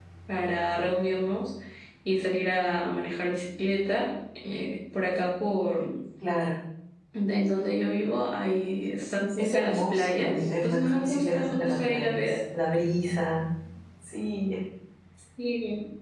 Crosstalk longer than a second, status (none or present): present